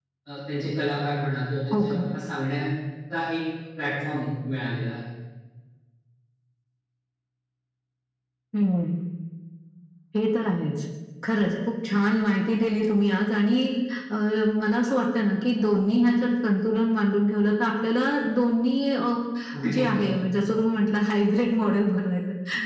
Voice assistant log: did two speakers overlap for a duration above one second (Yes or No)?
No